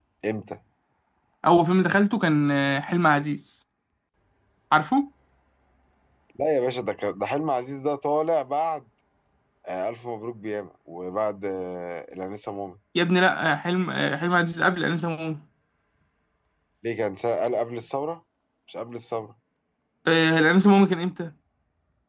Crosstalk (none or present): none